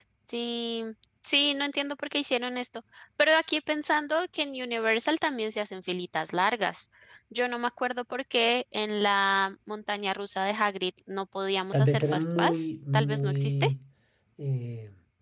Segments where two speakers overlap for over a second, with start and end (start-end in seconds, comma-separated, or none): 11.7-13.7